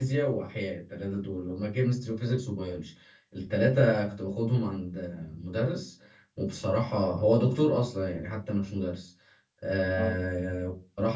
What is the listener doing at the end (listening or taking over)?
listening